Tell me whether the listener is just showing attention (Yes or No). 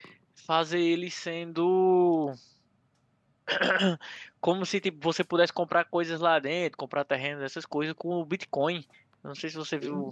Yes